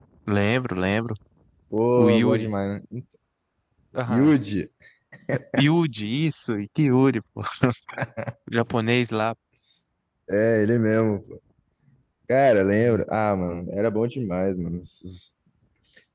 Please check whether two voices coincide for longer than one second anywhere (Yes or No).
No